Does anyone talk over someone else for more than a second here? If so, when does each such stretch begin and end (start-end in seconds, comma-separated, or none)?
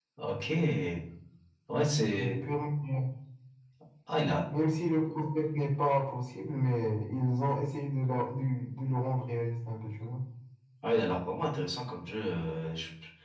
none